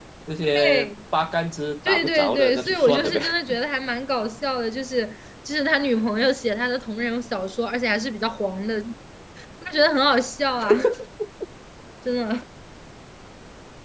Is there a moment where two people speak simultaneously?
Yes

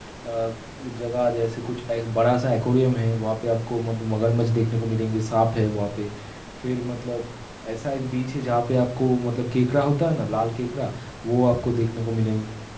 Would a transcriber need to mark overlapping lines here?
No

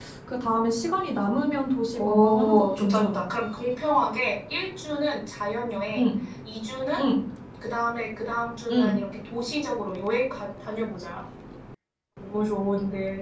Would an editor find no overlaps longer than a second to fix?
No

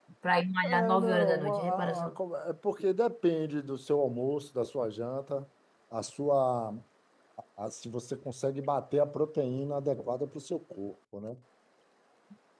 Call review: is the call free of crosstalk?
No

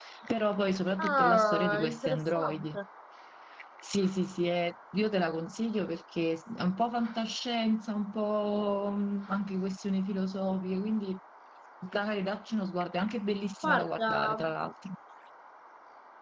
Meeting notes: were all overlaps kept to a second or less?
No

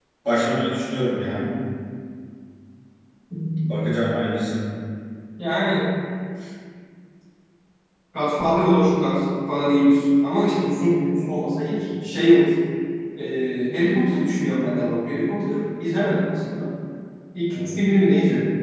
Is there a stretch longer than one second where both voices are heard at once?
No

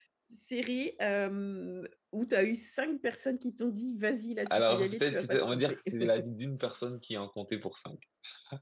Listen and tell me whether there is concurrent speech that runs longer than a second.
Yes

